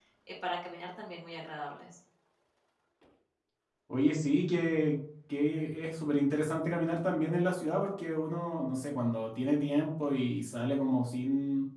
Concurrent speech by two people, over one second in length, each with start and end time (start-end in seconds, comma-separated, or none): none